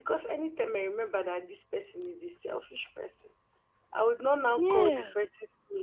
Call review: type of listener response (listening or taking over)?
listening